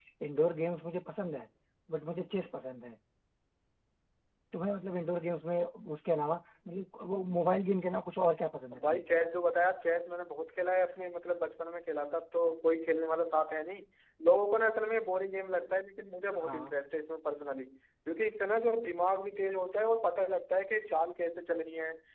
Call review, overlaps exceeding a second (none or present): none